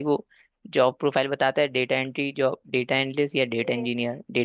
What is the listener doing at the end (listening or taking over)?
taking over